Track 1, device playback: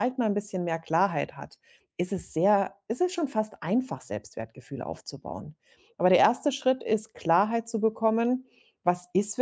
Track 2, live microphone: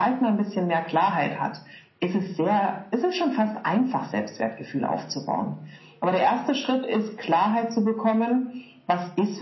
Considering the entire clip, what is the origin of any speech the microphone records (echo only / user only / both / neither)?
echo only